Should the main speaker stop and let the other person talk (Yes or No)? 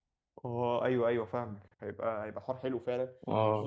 No